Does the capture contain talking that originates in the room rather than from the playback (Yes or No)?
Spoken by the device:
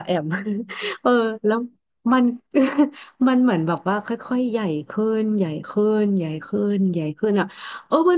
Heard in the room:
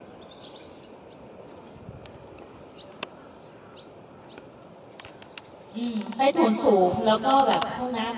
Yes